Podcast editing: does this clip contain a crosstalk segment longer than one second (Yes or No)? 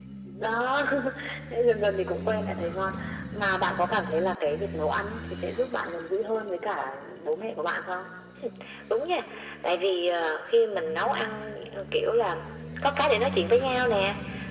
No